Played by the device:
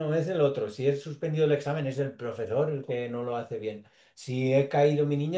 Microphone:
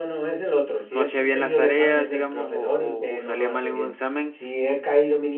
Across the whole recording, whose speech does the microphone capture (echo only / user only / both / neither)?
both